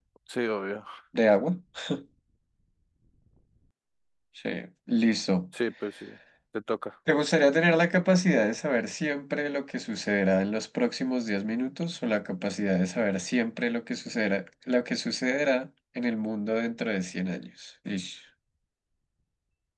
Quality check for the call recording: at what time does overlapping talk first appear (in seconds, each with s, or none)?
none